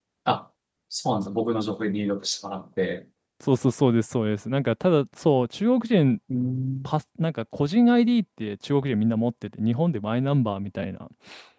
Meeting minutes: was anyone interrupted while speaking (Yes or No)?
No